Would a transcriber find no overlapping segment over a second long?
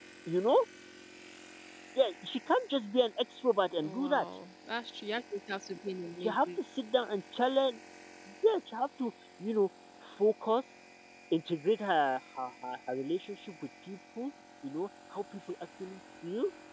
Yes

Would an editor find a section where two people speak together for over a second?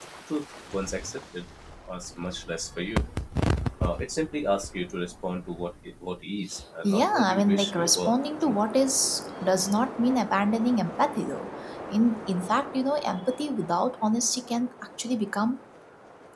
Yes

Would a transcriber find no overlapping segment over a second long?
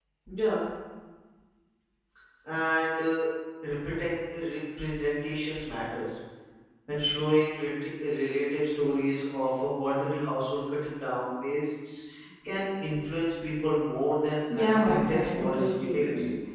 No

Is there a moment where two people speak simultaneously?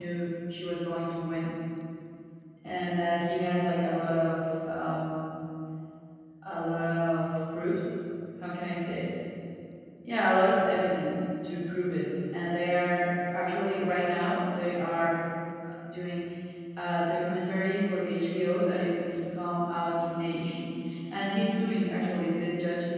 No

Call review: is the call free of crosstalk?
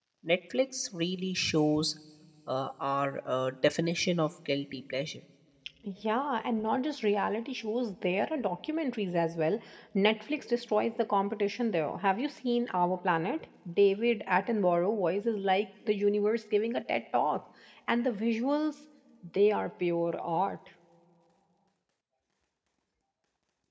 Yes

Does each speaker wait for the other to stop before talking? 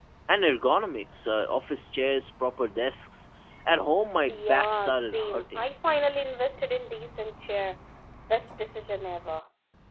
No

